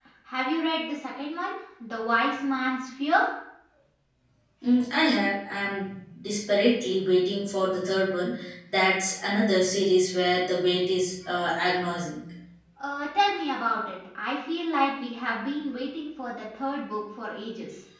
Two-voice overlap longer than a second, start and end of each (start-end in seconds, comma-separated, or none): none